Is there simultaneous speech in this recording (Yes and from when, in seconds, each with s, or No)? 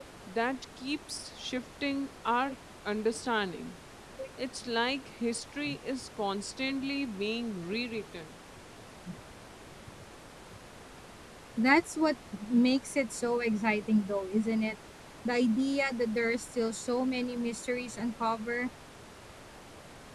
No